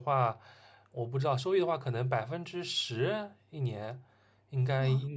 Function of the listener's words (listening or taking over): listening